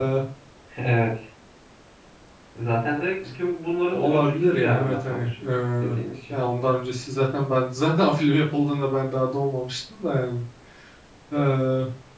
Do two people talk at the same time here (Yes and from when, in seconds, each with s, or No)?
Yes, from 3.9 s